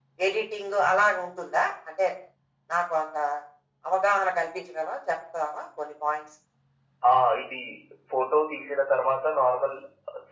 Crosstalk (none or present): none